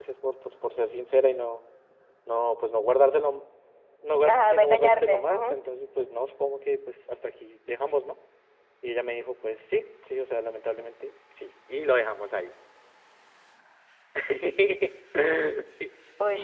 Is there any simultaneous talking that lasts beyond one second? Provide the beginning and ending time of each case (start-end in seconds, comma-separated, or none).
4.3-5.5